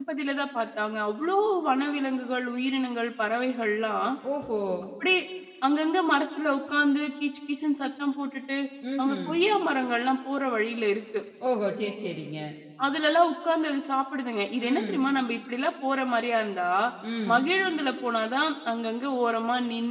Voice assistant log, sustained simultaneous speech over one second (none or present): none